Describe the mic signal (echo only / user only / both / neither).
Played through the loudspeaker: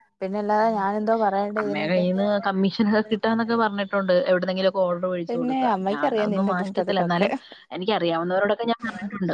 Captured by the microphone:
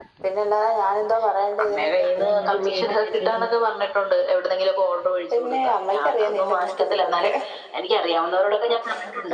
both